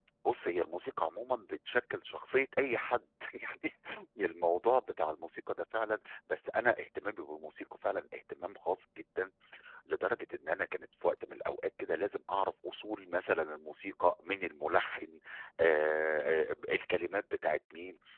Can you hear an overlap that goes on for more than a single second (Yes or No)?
No